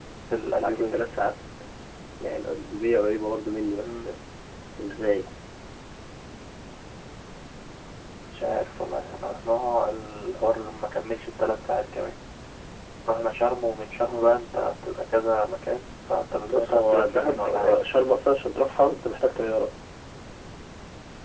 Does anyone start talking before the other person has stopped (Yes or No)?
Yes